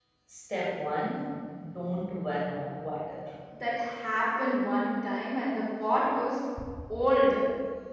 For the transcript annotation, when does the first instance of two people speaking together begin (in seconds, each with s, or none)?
none